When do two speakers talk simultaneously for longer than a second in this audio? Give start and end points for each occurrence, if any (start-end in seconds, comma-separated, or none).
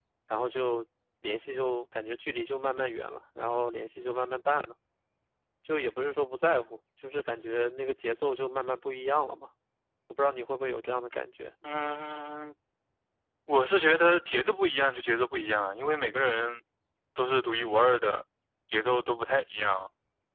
none